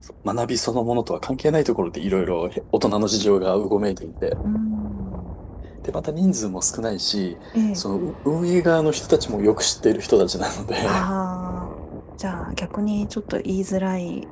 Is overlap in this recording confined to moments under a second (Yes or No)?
Yes